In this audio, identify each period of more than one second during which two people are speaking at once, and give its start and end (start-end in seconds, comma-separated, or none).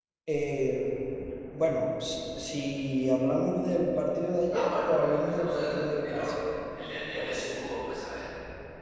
4.5-6.4